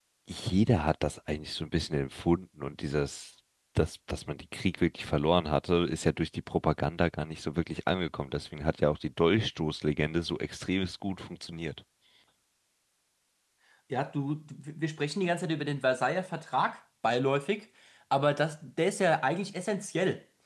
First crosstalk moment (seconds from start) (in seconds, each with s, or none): none